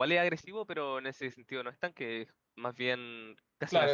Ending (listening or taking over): taking over